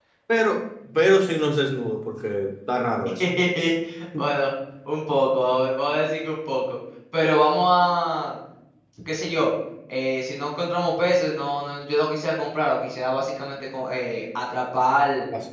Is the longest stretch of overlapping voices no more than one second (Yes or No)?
Yes